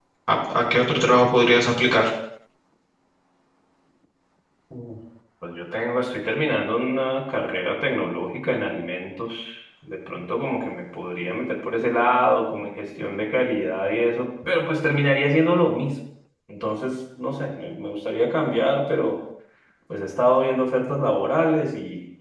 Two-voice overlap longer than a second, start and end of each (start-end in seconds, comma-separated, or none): none